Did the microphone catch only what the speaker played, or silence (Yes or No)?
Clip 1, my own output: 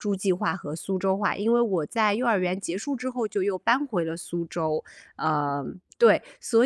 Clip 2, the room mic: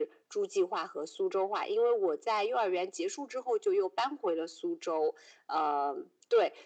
Yes